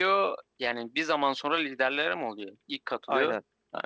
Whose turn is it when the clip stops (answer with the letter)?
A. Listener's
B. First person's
A